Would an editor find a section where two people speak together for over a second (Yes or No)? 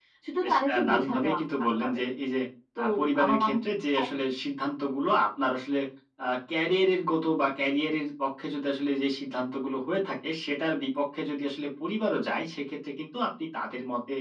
Yes